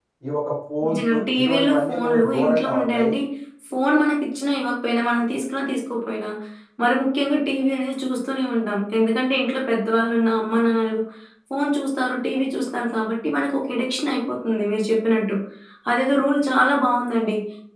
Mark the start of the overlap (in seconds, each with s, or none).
0.9 s